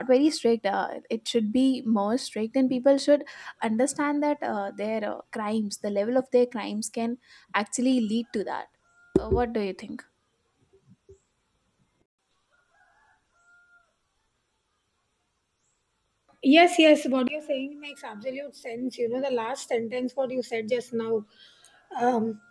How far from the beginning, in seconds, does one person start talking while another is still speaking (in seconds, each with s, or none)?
none